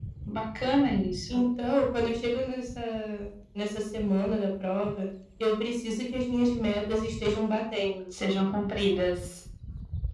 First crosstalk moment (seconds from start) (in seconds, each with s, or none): none